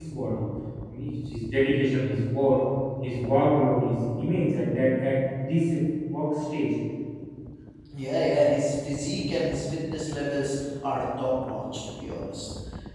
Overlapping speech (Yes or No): No